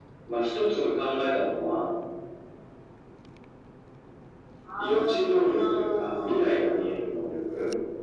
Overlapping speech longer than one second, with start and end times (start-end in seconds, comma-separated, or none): 4.8-6.9